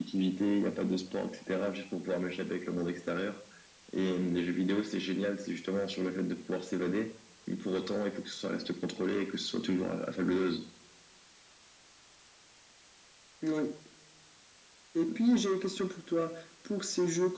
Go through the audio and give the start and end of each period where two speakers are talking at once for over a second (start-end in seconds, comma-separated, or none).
none